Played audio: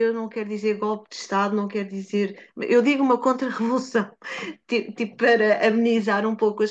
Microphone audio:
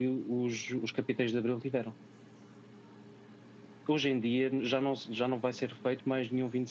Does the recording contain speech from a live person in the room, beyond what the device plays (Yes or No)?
Yes